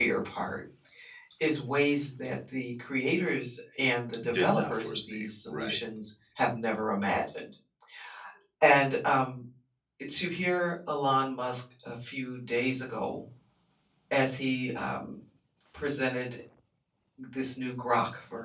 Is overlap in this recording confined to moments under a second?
No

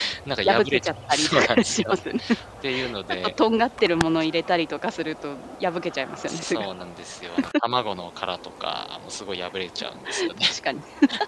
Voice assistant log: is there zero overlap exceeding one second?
No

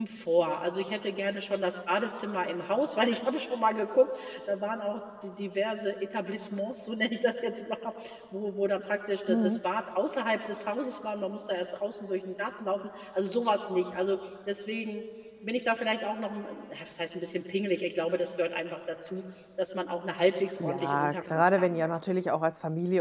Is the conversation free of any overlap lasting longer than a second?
No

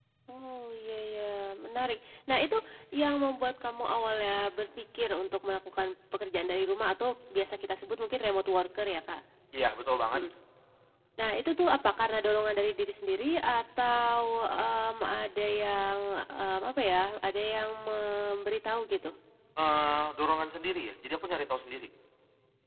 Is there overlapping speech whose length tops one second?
No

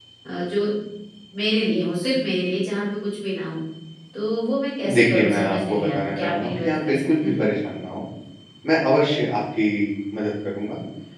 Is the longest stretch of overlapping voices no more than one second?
No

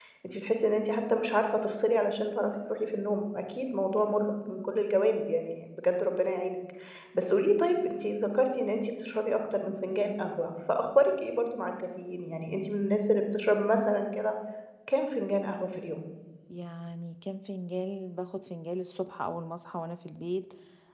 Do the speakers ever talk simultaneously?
No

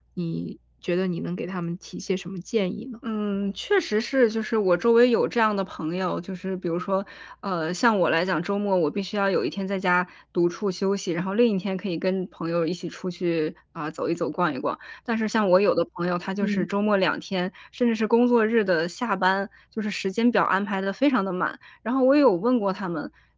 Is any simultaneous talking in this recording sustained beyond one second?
No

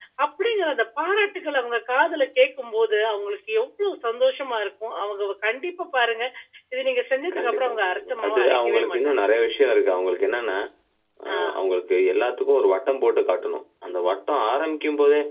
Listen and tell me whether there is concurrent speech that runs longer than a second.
Yes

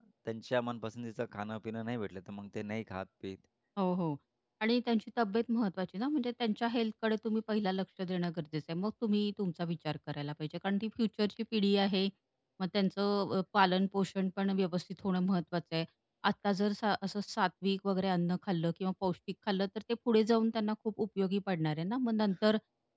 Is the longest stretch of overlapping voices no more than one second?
Yes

